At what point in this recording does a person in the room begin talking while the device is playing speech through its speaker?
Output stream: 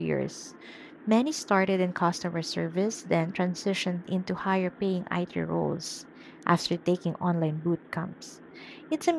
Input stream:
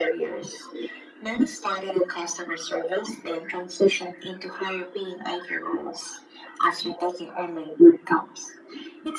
none

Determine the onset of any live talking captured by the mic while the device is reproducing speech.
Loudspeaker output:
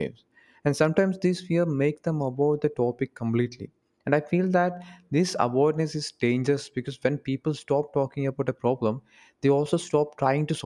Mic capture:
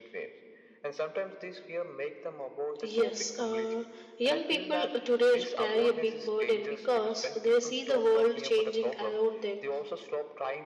2.8 s

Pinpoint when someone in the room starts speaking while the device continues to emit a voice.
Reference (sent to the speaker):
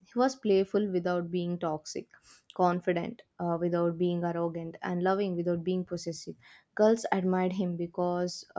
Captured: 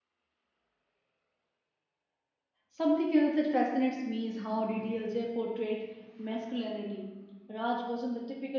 2.7 s

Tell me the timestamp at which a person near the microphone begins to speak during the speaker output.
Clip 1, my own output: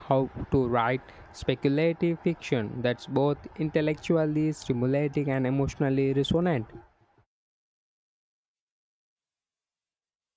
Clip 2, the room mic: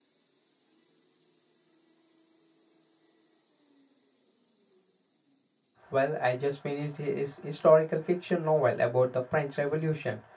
5.9 s

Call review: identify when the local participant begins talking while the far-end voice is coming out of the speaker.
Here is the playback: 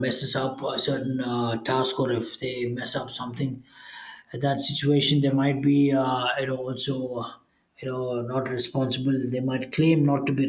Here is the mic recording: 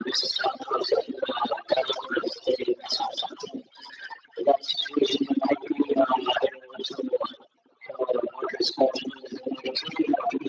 none

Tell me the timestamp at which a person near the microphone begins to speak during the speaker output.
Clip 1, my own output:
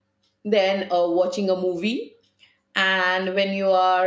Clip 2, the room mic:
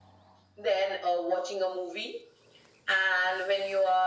none

